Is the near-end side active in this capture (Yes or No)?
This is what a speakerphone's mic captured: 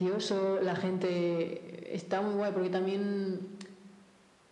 No